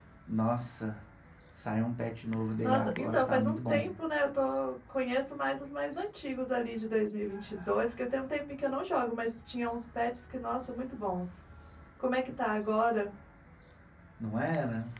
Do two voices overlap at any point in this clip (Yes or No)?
Yes